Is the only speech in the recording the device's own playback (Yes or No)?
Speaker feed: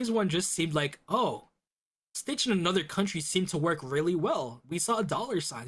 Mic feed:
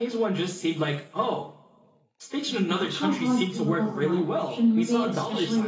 No